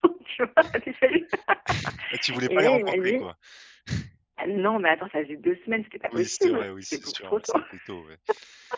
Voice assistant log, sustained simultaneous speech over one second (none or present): present